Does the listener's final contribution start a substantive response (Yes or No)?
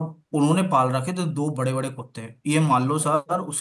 No